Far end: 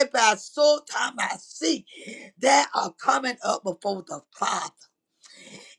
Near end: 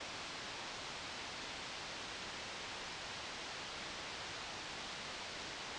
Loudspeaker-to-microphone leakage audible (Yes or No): No